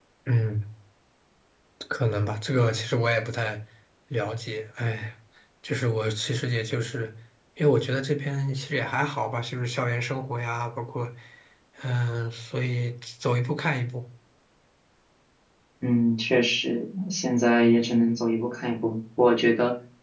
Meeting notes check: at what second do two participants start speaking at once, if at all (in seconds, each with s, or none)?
none